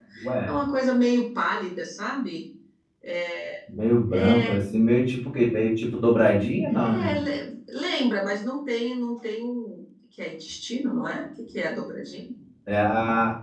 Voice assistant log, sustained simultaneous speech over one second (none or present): none